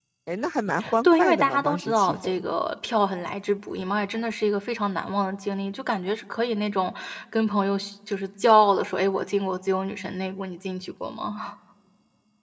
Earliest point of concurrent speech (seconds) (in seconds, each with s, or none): 1.0 s